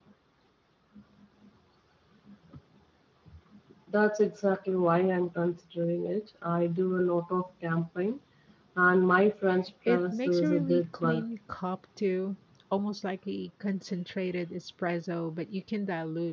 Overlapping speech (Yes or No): Yes